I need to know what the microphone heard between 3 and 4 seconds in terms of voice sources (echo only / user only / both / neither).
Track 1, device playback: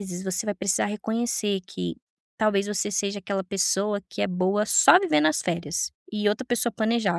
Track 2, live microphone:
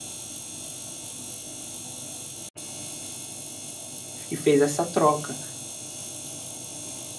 neither